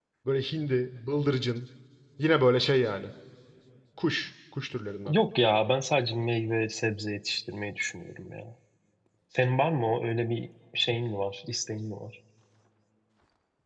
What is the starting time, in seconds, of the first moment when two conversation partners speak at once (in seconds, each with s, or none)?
none